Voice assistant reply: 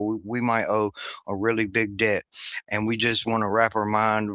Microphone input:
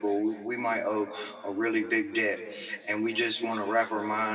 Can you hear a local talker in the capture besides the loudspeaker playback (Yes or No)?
No